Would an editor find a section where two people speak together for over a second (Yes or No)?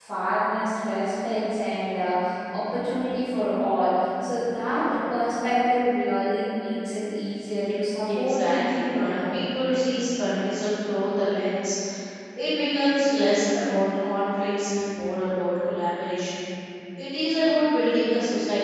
Yes